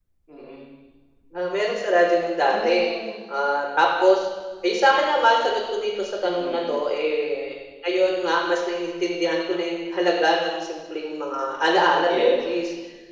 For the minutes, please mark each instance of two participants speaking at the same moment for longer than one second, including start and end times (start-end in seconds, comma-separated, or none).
none